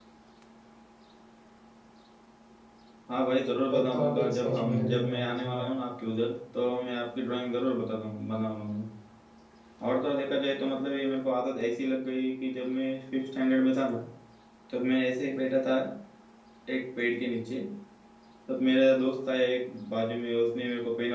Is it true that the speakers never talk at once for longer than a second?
No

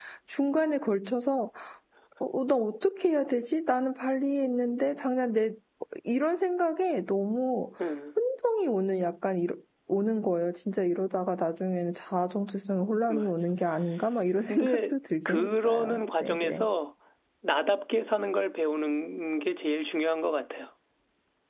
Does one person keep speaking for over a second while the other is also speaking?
Yes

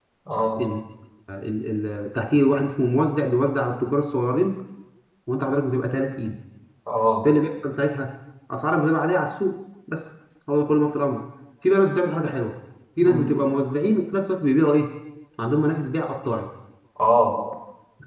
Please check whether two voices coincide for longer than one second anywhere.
No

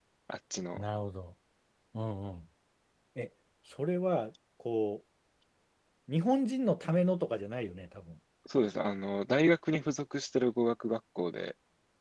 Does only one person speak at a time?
Yes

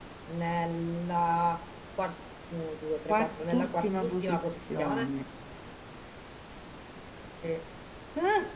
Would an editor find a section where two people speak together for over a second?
Yes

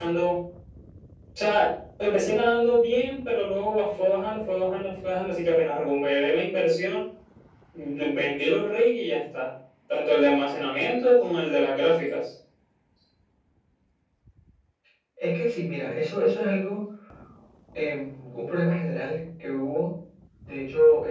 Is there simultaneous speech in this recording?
No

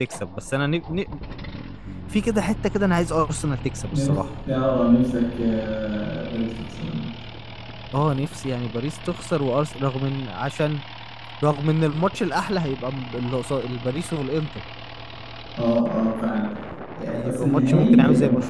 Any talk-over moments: Yes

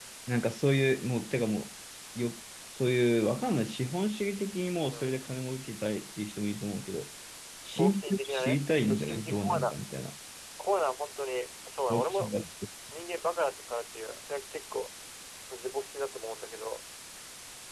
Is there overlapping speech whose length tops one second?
Yes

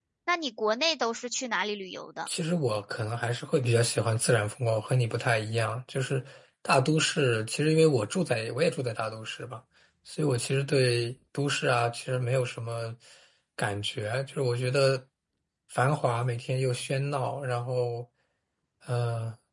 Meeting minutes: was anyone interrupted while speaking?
No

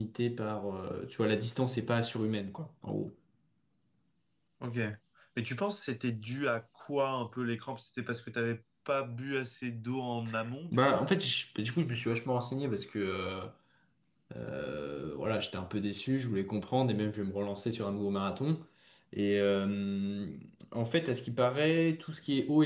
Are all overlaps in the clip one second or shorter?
Yes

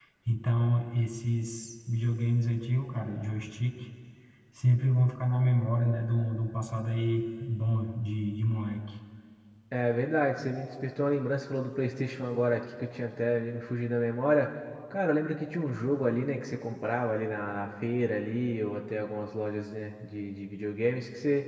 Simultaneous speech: No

